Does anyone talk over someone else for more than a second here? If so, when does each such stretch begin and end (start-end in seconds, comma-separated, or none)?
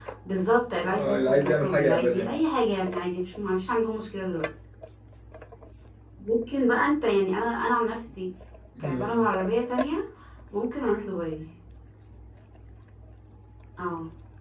0.9-2.4